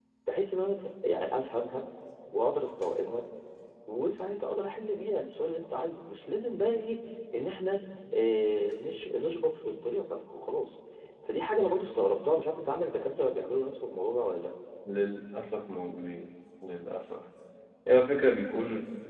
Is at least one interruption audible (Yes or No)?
No